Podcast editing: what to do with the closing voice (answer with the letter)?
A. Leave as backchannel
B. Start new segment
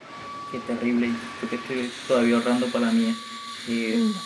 A